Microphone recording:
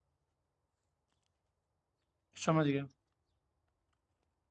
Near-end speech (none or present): present